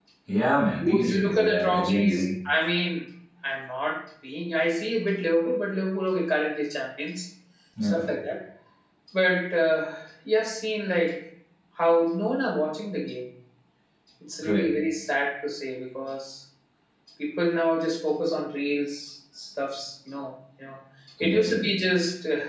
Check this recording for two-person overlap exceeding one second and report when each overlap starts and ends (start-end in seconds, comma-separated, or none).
0.8-2.2